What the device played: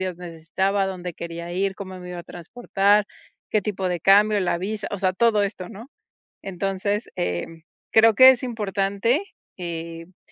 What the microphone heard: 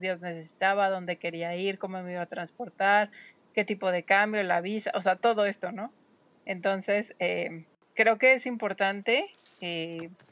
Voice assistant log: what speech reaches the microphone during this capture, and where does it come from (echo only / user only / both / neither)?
echo only